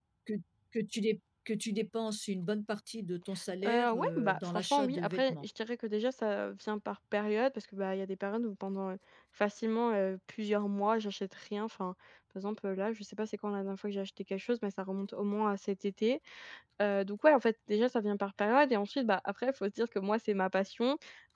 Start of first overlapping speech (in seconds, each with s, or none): 3.6 s